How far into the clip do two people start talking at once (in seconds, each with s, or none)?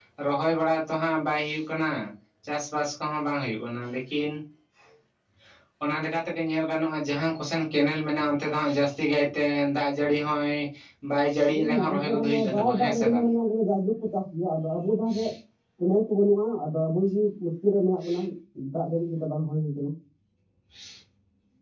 11.5 s